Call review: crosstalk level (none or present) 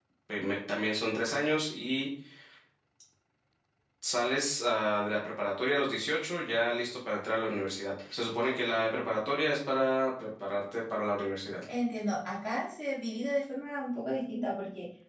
none